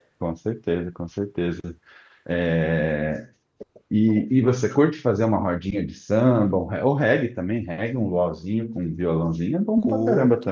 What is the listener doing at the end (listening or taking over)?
taking over